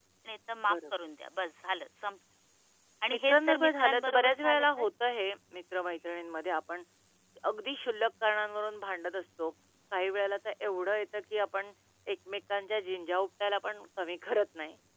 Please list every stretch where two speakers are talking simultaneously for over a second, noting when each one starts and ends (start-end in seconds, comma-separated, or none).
3.1-4.8